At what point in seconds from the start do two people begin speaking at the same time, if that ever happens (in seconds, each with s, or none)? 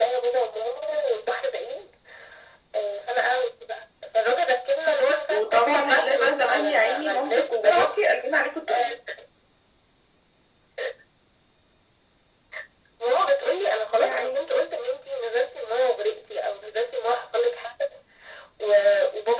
5.3 s